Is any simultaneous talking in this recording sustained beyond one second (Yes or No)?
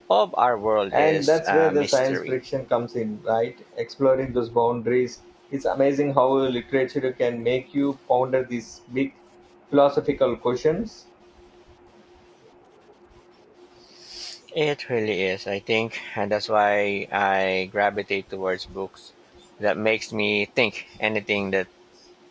Yes